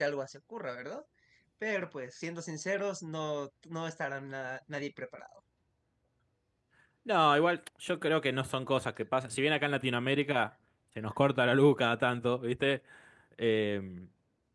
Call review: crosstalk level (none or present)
none